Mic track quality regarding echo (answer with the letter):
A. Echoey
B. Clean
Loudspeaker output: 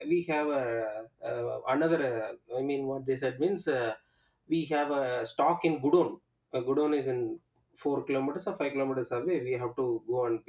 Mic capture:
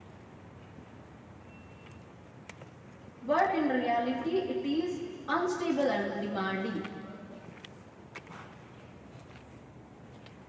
B